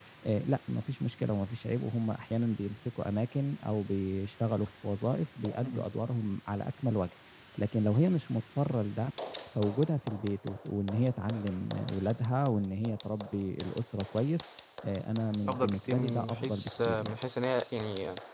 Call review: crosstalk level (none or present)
present